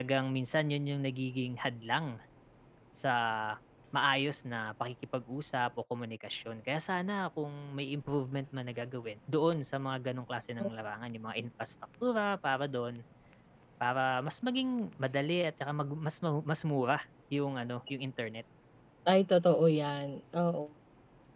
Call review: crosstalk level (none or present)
none